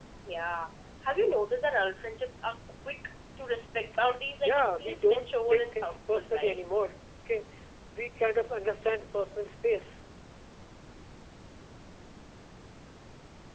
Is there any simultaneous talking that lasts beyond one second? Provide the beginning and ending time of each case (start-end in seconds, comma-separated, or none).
4.4-6.6